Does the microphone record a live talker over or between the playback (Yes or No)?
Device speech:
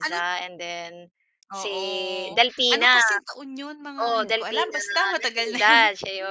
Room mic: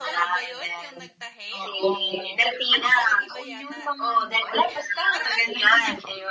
Yes